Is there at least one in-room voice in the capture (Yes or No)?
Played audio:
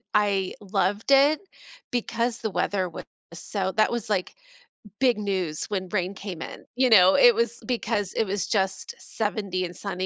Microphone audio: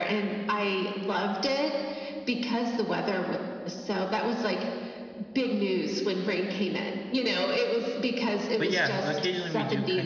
Yes